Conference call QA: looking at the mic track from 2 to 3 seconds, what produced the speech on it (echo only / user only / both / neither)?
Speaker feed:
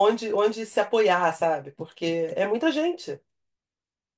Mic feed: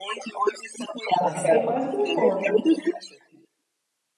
both